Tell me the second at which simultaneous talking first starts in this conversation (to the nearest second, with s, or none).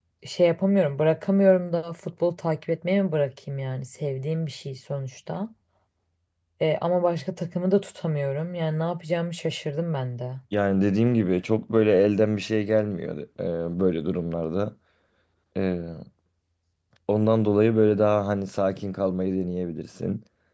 none